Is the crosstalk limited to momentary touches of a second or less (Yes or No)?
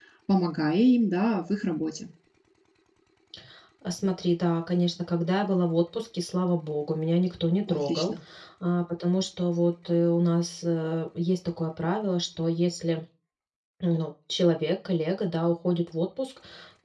Yes